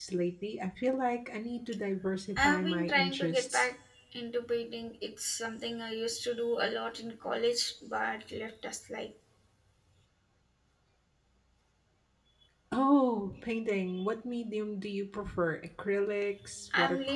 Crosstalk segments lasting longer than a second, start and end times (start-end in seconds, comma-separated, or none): 2.4-3.7